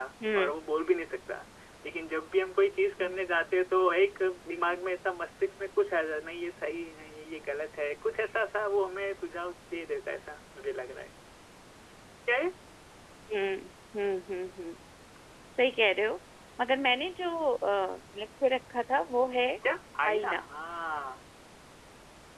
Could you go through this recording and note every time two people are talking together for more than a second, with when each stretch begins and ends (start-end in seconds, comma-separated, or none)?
none